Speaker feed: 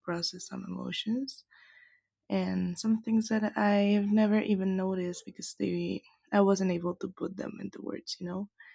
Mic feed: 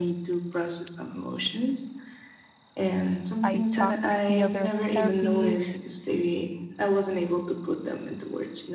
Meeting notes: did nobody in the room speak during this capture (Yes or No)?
No